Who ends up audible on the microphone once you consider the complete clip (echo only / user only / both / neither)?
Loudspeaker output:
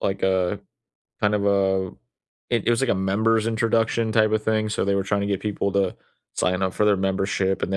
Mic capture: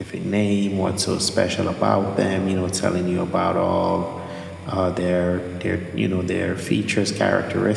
user only